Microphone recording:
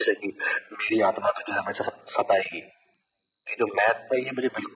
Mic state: echo only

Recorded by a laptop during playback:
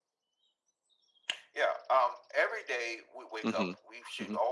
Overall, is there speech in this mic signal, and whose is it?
both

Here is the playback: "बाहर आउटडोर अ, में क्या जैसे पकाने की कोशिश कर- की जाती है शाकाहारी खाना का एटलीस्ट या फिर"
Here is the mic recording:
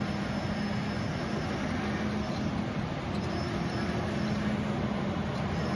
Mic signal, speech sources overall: neither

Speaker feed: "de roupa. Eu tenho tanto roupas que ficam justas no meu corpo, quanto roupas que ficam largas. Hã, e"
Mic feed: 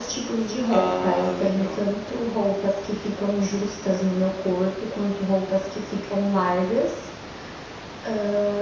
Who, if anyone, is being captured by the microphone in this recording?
both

